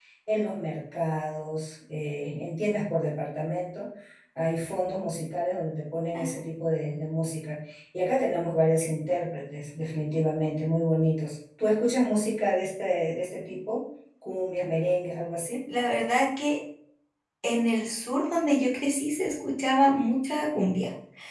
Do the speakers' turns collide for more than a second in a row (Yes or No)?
No